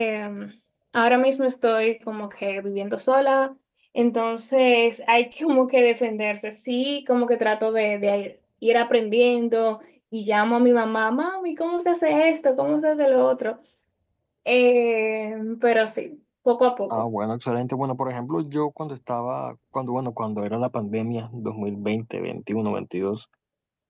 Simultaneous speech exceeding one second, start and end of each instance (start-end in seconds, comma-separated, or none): none